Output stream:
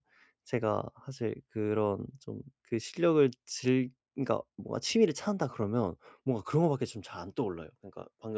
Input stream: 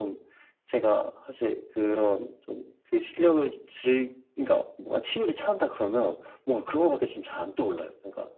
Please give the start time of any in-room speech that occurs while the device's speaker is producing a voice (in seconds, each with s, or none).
none